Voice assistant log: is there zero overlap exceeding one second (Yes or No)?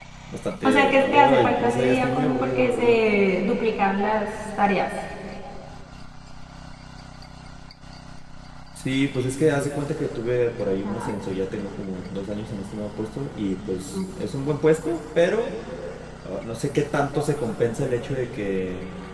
No